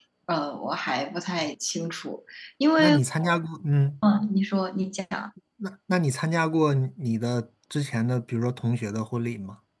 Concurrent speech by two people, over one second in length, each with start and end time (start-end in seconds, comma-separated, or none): none